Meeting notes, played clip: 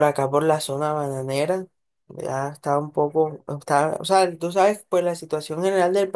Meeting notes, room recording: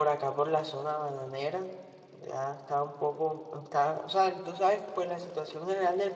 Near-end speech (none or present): none